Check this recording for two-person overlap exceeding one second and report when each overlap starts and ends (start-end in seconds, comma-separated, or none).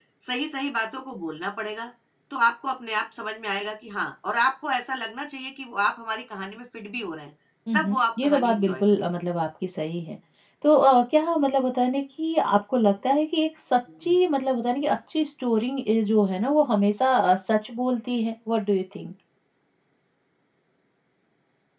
7.7-9.1